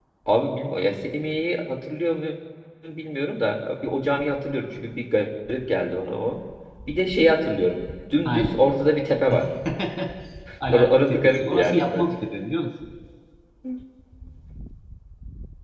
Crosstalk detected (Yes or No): Yes